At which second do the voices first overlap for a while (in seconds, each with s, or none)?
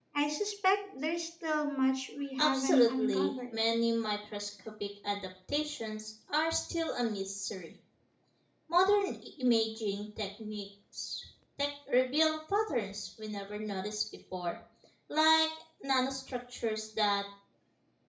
2.4 s